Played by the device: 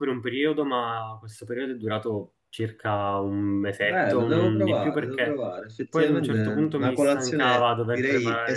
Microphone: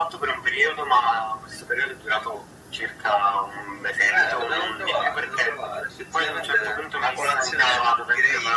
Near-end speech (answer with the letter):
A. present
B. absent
B